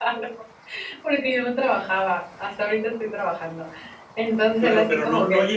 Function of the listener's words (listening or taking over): taking over